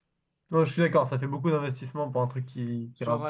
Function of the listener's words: taking over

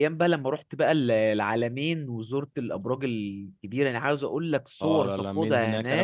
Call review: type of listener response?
taking over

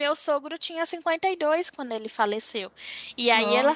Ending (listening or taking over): listening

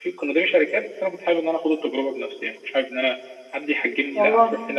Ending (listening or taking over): listening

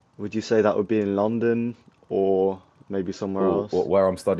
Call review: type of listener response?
taking over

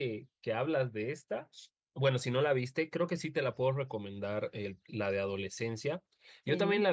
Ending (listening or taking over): listening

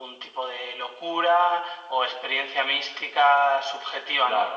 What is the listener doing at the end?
listening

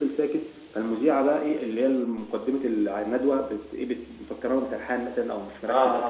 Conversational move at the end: listening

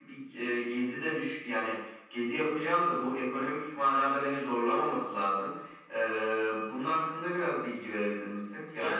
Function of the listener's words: taking over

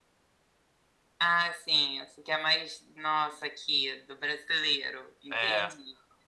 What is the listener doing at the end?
taking over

